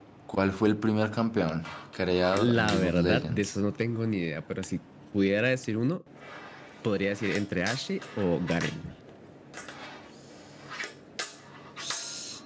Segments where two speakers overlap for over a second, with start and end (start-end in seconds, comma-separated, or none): 2.4-3.6